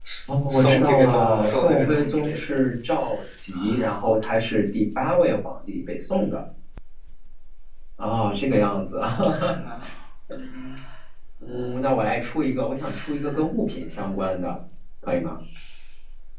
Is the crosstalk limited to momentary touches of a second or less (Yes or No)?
No